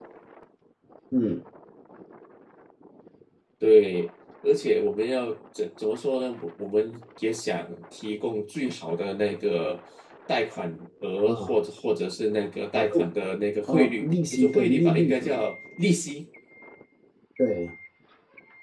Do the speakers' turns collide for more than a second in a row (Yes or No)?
Yes